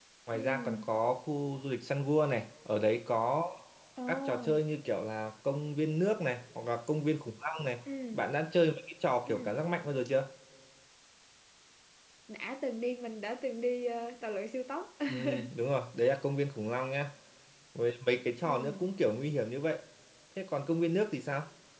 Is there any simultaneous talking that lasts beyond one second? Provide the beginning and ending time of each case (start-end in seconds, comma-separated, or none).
none